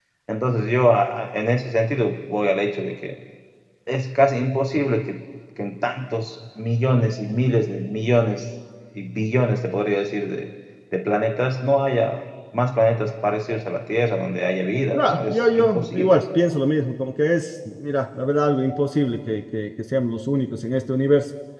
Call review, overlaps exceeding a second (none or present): present